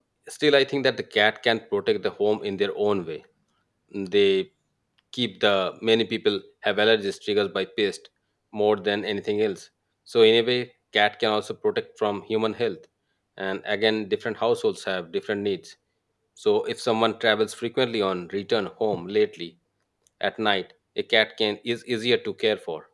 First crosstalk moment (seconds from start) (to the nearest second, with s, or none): none